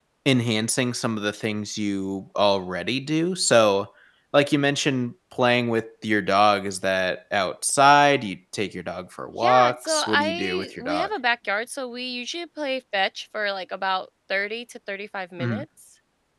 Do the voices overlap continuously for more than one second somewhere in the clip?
Yes, from 9.4 s

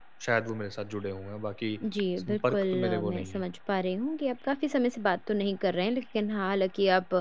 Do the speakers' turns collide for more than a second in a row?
Yes, from 2.2 s

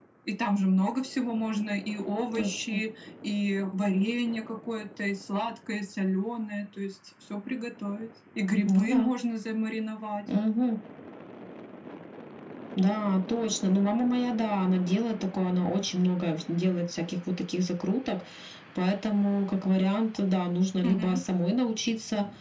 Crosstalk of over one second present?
No

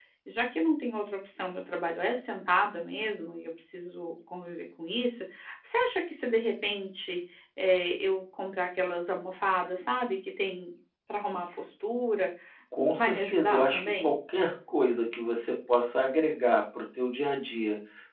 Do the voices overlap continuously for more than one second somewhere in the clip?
Yes, from 13.0 s

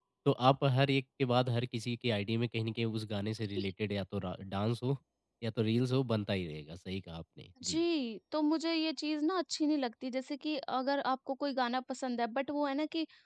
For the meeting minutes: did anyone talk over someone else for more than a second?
No

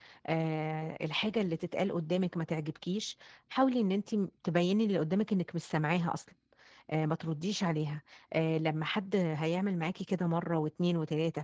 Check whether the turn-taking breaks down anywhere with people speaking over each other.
No

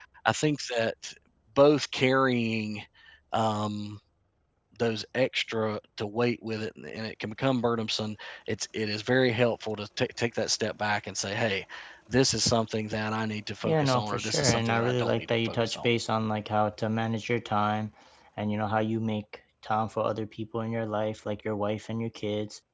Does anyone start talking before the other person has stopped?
Yes, from 13.6 s

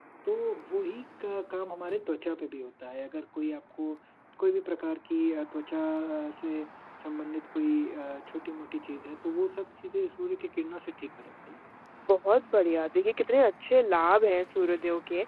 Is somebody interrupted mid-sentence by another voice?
No

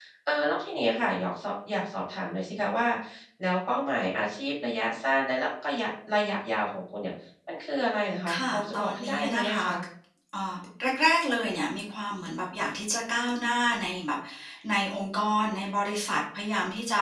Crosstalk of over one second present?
Yes, from 8.3 s

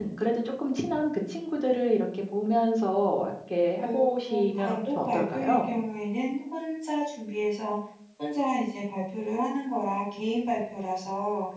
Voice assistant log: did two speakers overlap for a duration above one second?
Yes, from 3.8 s

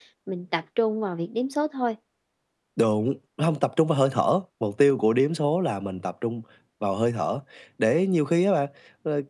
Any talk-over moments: No

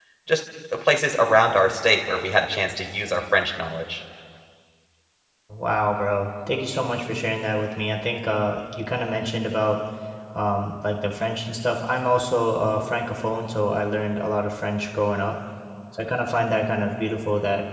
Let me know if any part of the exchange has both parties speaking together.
No

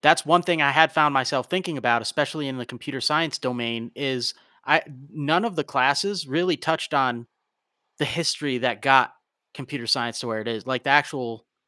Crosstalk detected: No

